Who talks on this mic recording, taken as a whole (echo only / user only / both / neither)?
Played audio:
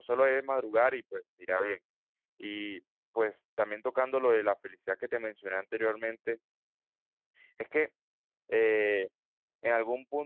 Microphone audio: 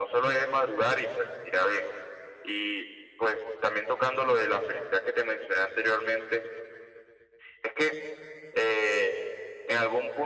echo only